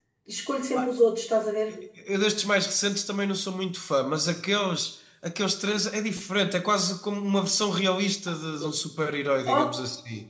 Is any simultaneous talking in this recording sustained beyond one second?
No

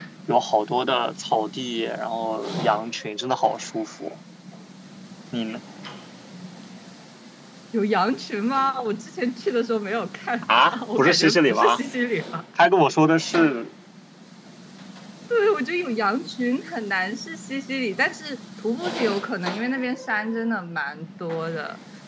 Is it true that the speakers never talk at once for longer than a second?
No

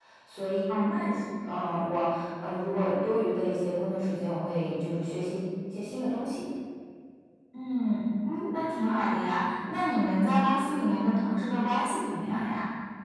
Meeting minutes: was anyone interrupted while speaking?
No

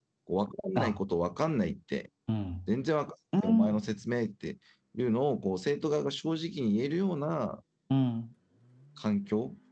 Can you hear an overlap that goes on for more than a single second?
No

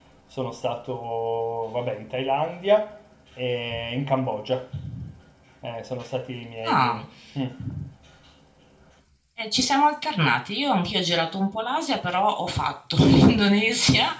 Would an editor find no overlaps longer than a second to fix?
Yes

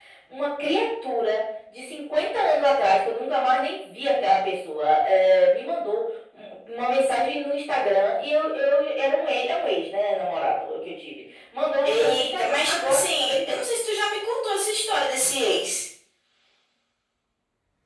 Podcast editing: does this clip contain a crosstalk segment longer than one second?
Yes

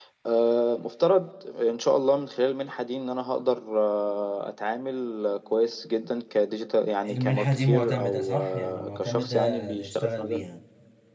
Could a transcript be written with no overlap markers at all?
No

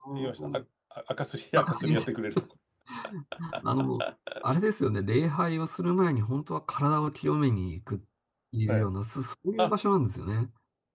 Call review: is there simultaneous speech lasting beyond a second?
No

